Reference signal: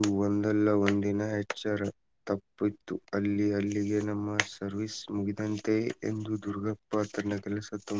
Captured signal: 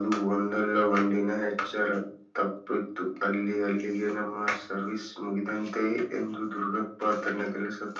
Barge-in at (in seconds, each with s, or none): none